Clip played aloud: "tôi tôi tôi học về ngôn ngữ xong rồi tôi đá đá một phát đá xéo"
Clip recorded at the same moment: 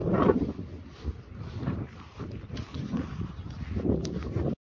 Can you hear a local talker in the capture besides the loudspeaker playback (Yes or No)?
No